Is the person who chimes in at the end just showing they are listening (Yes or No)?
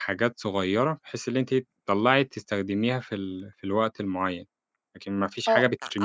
No